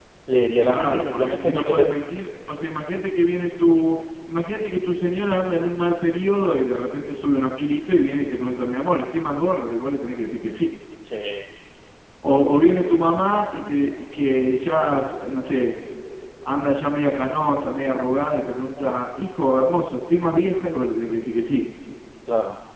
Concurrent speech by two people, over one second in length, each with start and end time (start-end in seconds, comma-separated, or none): 0.6-1.9